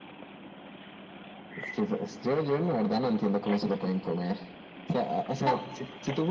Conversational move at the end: listening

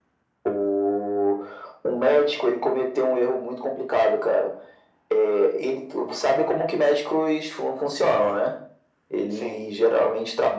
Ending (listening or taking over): listening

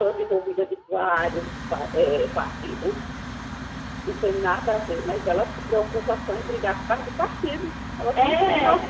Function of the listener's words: taking over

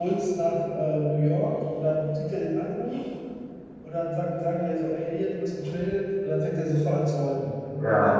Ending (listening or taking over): listening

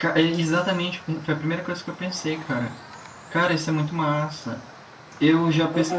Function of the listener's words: taking over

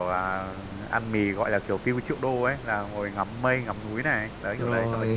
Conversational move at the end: taking over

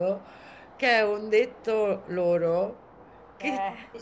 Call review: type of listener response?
listening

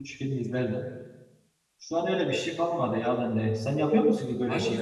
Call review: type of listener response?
taking over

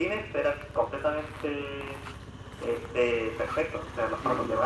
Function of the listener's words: listening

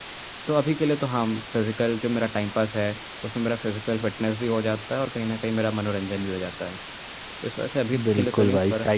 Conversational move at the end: taking over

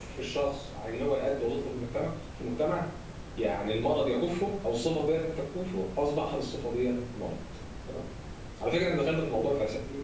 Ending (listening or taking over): listening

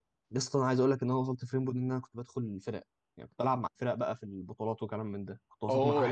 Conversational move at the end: taking over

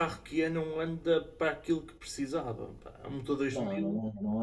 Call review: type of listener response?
taking over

